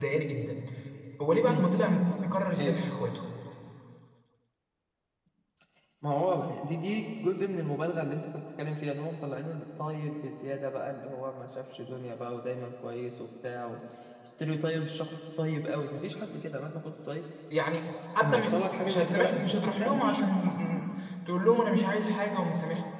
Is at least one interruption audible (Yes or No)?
Yes